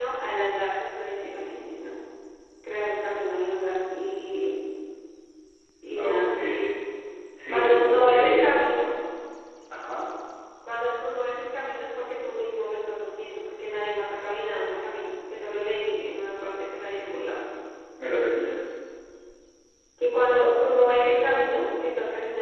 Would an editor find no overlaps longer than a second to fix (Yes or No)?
No